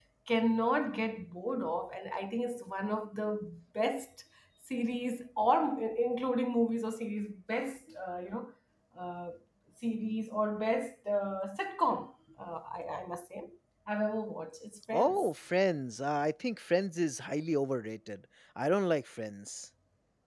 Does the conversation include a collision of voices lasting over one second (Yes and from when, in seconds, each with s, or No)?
No